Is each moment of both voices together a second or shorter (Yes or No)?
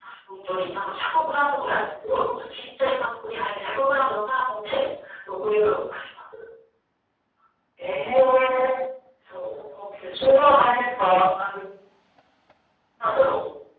Yes